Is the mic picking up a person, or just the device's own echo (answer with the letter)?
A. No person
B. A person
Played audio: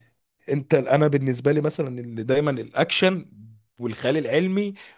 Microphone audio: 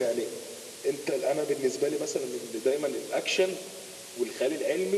A